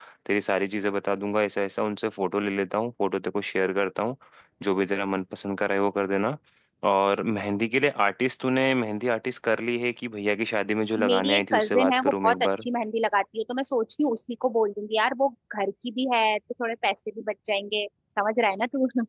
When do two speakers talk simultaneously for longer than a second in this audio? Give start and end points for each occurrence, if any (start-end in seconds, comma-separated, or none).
11.1-12.7